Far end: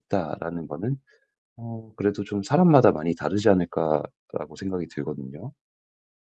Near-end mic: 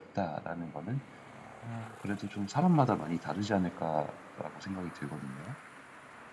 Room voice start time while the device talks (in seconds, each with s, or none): none